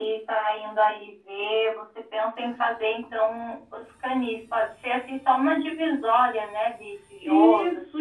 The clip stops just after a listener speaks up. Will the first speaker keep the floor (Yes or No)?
No